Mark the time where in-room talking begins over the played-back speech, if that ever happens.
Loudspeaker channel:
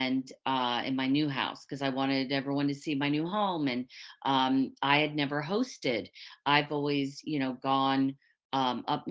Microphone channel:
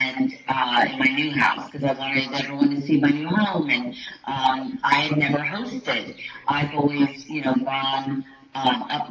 none

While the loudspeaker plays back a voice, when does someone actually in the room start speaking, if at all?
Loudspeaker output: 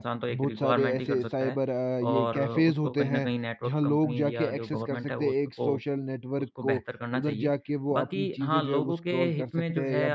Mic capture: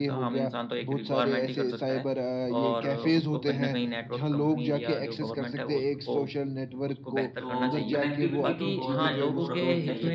7.4 s

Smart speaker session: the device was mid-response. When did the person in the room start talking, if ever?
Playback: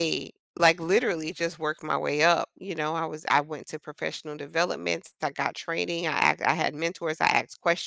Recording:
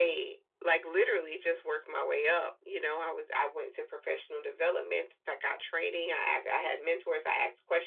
none

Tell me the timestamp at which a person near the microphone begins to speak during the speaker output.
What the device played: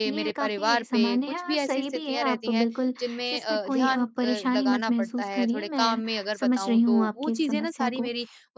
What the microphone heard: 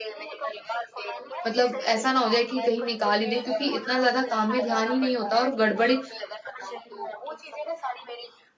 1.5 s

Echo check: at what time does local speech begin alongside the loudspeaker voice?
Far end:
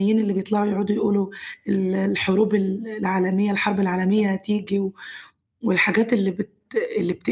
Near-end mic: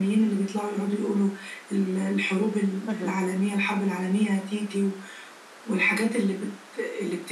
2.9 s

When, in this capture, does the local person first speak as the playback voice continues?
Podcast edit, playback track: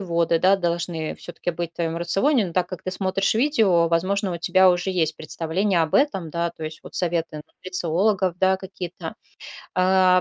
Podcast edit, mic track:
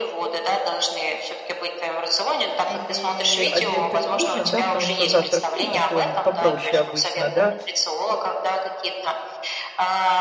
2.6 s

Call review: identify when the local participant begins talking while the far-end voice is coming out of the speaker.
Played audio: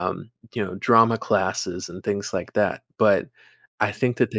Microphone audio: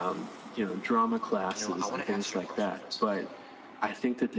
1.5 s

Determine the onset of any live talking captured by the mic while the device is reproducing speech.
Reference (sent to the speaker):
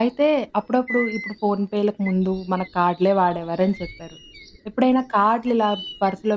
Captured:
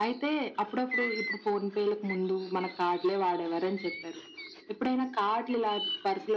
none

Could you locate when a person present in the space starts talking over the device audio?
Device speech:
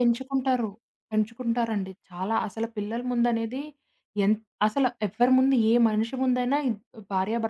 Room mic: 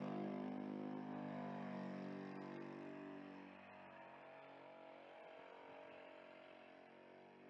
none

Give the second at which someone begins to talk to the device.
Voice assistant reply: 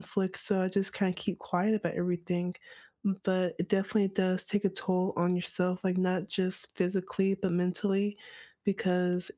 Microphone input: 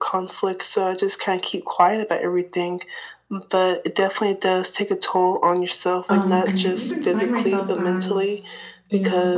6.1 s

